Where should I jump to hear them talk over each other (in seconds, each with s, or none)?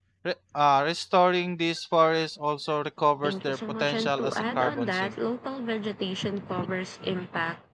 3.2 s